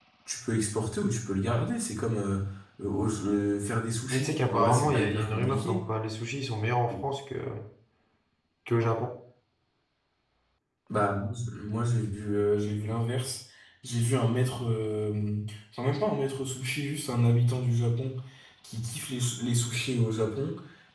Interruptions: present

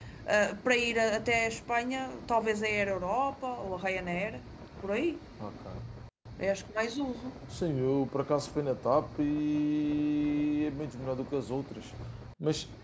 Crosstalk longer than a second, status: none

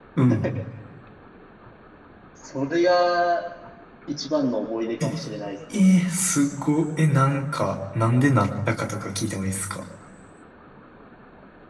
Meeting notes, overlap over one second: none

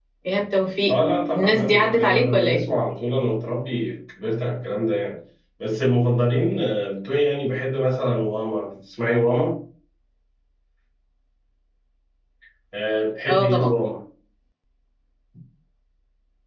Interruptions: present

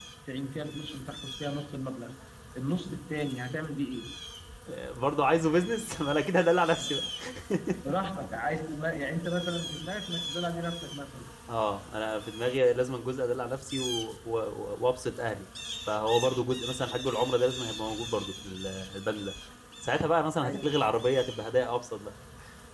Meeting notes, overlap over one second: none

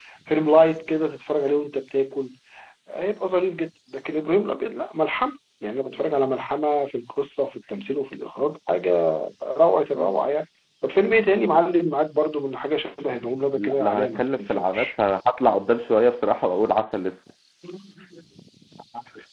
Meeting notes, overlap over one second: present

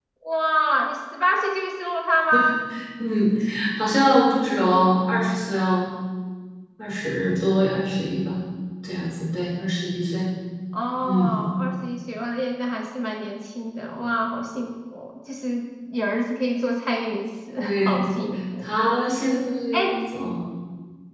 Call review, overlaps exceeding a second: none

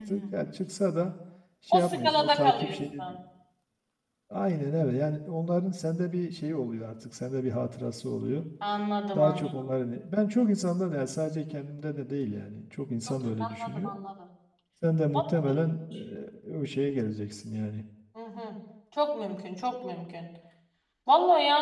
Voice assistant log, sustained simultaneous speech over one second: present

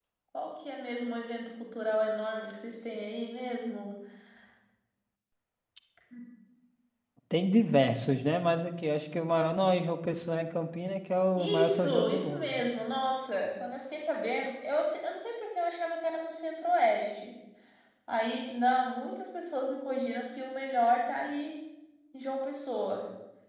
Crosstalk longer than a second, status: present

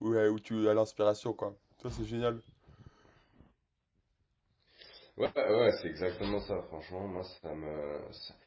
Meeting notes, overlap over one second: none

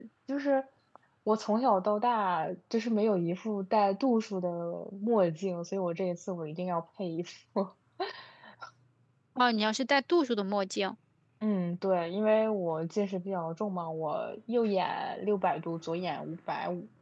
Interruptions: none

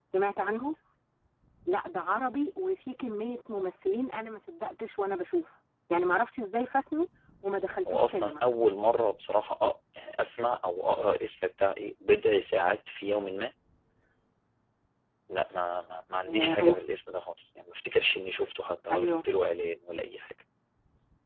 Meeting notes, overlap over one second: none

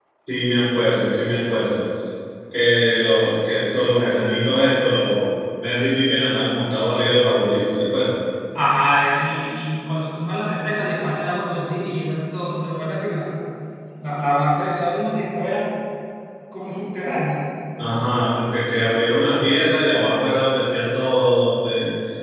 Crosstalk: none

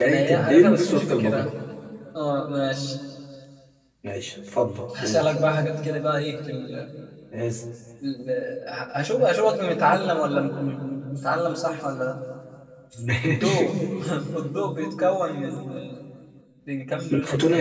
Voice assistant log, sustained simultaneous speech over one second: present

